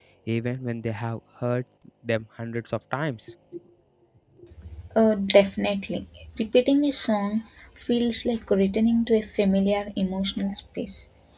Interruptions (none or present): none